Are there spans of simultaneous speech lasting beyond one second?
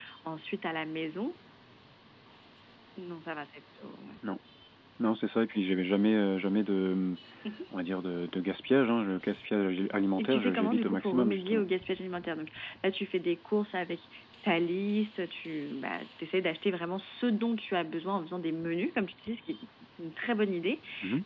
Yes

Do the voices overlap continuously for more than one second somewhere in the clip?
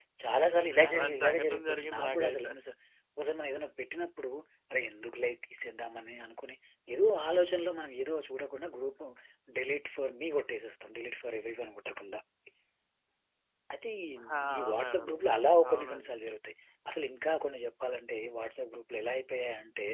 Yes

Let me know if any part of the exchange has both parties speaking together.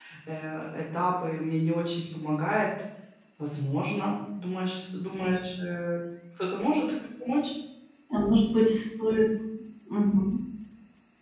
No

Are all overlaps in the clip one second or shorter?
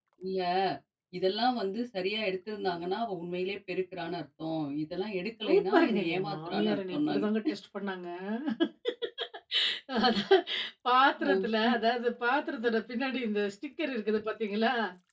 No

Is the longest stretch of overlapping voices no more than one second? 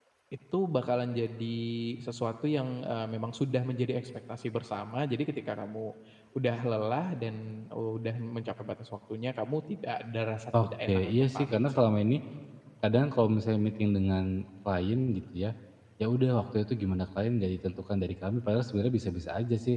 No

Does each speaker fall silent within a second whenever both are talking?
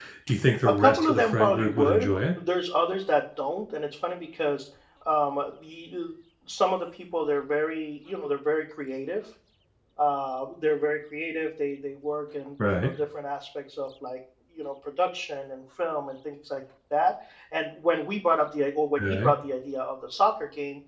No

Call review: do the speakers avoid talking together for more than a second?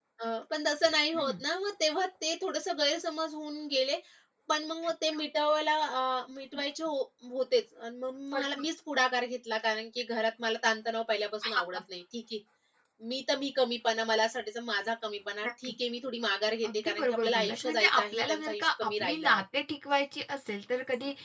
No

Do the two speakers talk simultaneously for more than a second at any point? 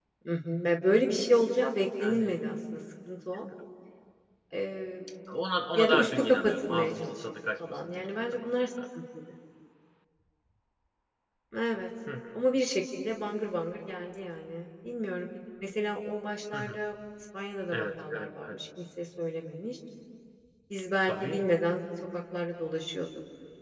Yes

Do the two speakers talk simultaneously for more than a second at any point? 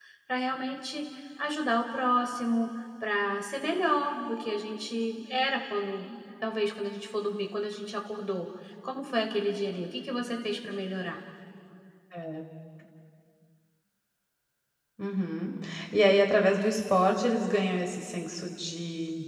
No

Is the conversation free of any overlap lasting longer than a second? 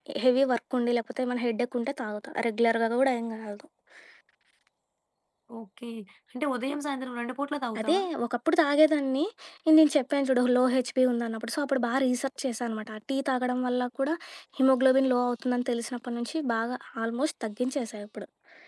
Yes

